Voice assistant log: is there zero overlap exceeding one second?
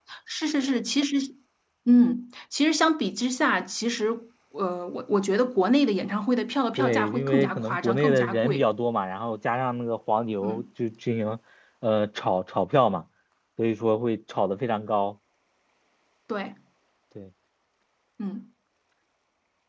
No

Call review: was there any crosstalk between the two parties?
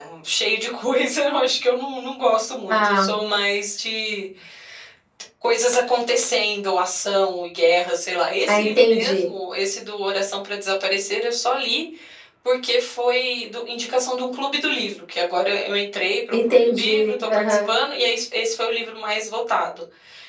Yes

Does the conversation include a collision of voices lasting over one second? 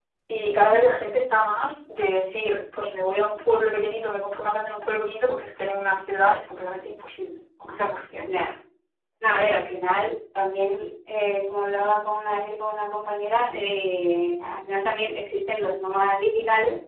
No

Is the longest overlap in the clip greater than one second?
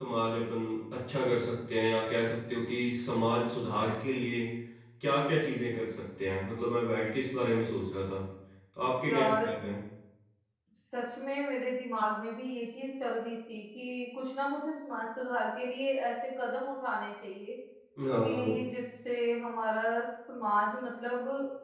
No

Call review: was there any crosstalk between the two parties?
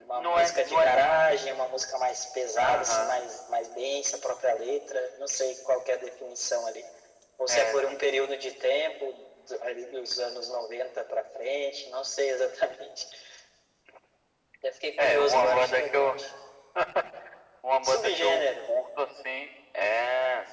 Yes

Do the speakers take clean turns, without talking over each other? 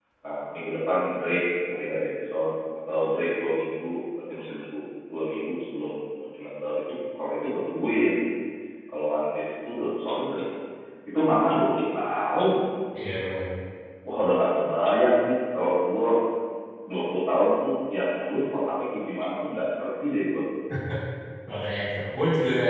Yes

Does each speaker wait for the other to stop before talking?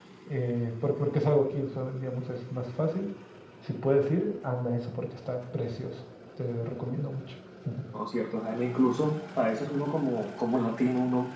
Yes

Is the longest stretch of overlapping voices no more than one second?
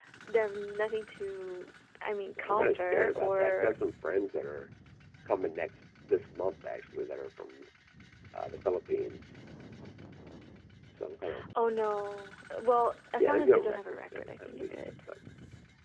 No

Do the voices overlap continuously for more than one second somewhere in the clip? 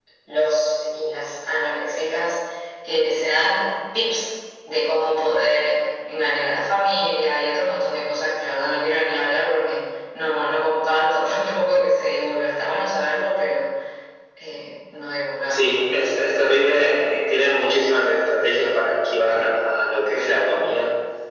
No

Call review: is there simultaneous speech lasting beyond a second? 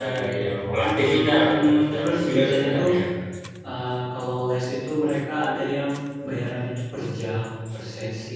Yes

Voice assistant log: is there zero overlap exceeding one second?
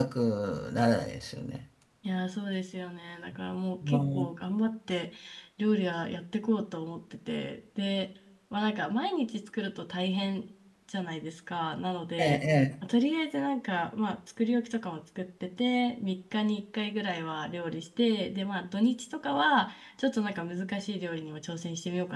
Yes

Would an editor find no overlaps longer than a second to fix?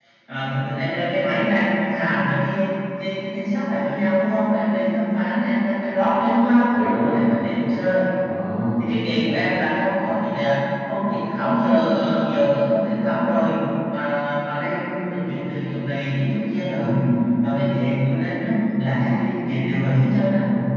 Yes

